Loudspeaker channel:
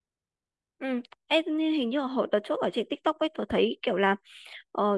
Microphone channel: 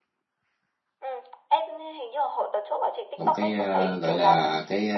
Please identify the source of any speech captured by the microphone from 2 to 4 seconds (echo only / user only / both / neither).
both